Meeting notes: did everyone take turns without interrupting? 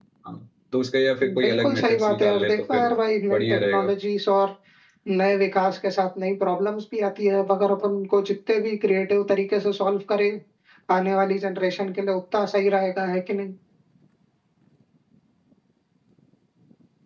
No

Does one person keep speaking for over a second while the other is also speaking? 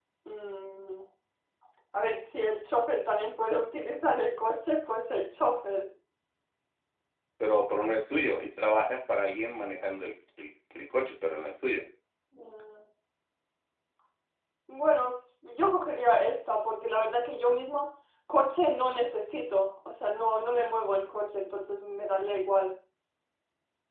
No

